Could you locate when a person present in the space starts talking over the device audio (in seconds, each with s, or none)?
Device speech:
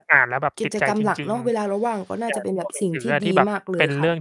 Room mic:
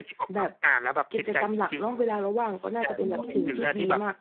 2.9 s